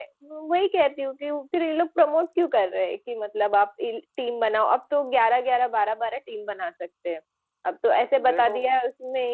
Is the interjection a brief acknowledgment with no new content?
Yes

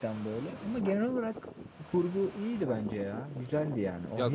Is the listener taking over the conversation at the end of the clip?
Yes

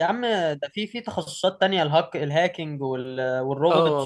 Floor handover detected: Yes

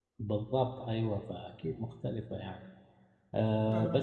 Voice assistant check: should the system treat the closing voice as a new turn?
No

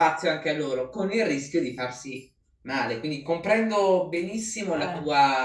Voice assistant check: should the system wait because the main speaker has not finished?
Yes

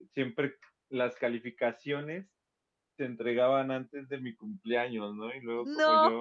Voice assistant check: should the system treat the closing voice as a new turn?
No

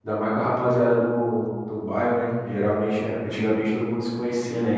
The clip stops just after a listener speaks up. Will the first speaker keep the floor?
Yes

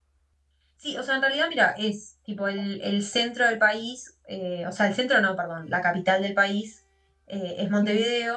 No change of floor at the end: Yes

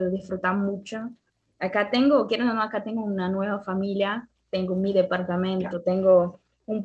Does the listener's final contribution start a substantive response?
No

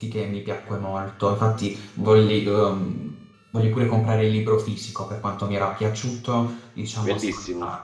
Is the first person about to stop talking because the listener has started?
Yes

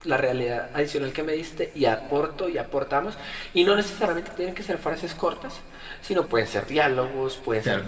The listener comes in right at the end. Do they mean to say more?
Yes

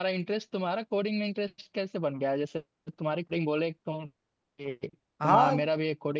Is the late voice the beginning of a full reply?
No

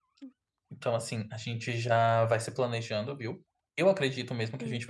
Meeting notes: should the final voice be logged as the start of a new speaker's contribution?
No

